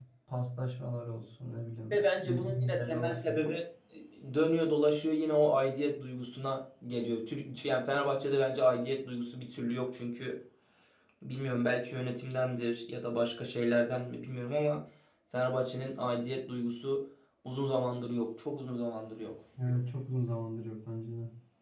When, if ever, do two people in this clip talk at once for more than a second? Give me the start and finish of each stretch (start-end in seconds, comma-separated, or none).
1.9-3.4